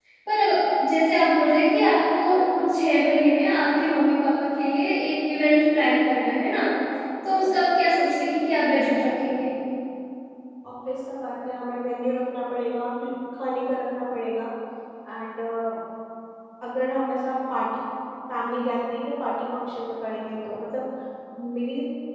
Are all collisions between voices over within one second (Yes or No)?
Yes